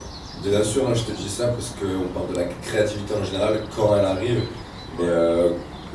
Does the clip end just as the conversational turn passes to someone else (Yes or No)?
No